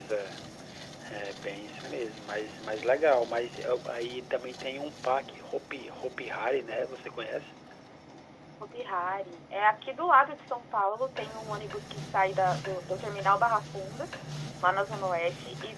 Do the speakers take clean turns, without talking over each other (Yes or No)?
Yes